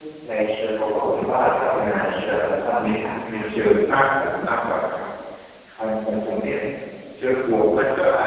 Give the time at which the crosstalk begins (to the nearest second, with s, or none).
1 s